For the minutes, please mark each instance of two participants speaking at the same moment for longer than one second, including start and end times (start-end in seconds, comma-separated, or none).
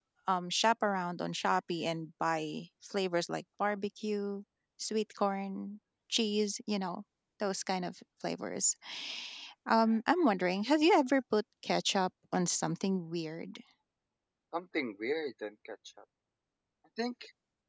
none